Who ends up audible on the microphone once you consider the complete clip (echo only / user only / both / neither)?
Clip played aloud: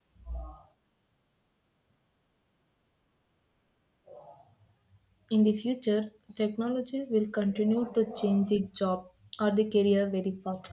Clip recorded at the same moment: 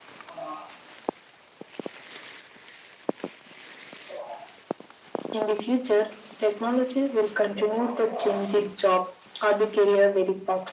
echo only